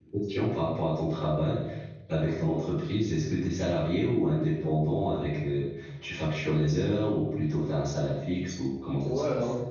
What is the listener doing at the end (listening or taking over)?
taking over